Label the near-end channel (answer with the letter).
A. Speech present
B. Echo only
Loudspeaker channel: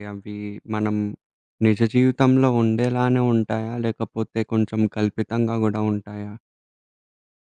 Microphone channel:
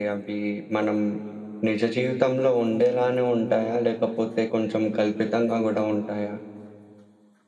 B